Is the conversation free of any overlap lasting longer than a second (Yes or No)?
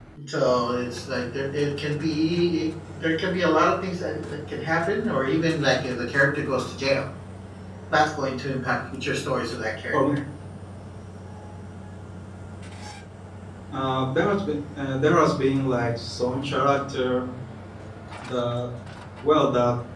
Yes